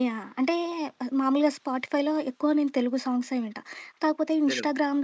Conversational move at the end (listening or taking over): listening